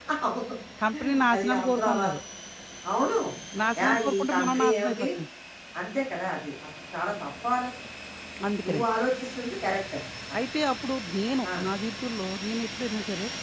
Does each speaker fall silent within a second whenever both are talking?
No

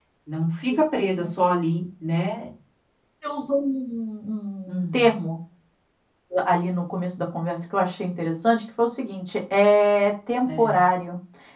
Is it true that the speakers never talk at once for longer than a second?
Yes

